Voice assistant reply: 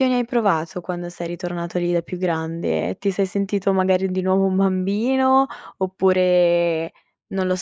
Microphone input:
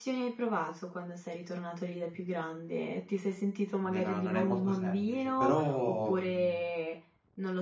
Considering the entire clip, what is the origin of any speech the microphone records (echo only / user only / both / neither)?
both